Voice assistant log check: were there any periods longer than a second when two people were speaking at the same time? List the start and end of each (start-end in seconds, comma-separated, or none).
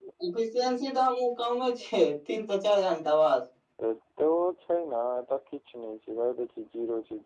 none